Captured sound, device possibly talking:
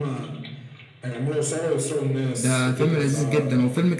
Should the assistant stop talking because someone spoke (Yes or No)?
Yes